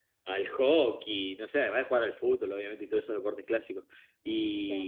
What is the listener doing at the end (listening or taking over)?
listening